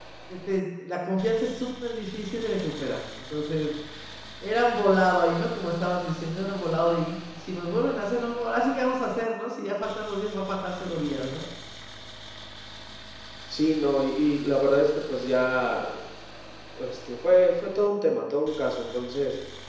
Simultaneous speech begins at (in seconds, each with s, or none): none